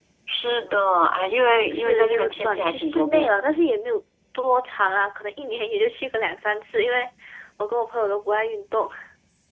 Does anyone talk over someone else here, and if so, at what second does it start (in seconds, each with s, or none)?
1.7 s